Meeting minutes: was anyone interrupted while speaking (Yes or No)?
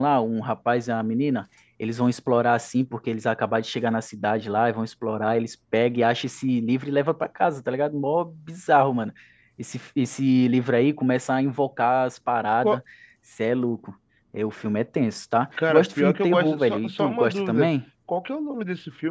Yes